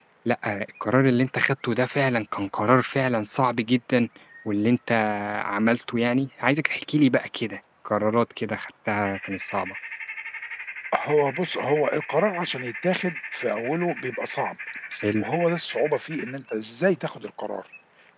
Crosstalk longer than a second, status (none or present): none